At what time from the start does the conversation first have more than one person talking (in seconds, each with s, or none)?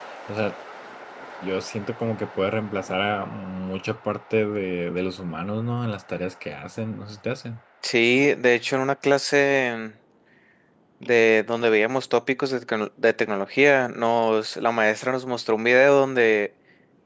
none